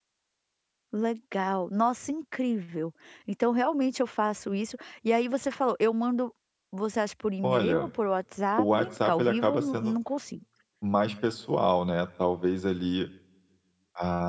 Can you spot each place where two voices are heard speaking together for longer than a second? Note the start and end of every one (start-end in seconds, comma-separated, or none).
8.6-9.9